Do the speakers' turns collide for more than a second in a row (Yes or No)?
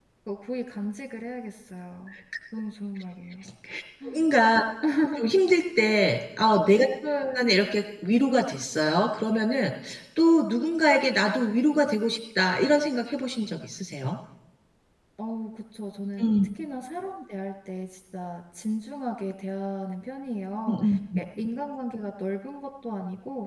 No